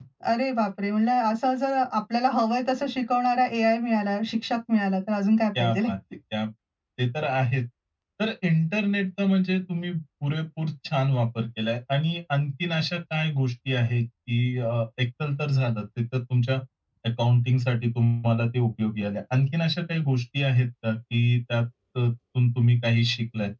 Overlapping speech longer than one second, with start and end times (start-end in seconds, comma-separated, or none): none